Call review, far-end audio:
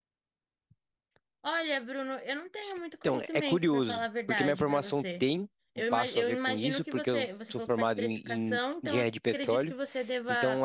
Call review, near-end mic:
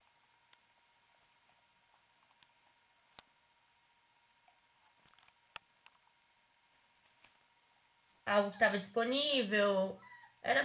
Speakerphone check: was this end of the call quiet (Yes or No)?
No